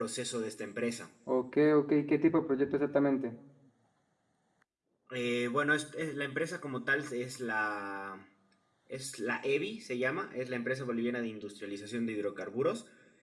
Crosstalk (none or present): none